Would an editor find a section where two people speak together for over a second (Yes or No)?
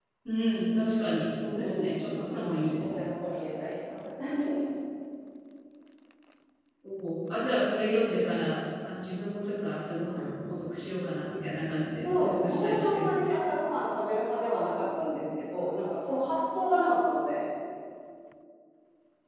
Yes